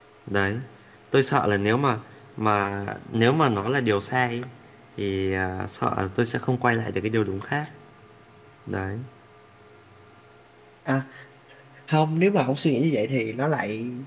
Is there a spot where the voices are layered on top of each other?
No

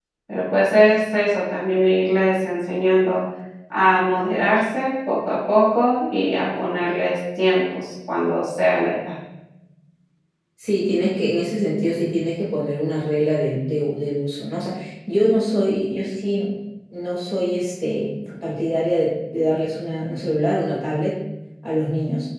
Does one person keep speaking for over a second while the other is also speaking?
No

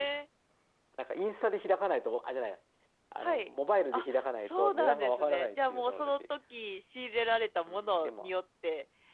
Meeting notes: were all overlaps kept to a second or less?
No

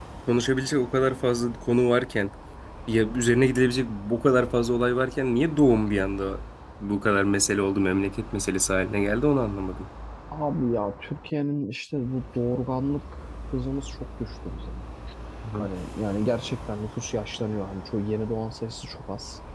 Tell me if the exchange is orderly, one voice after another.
Yes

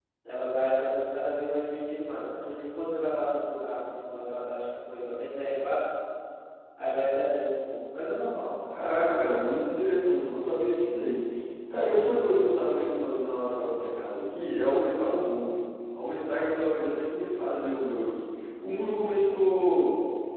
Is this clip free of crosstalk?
Yes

